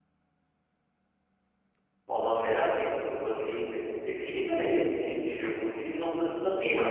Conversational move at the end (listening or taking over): listening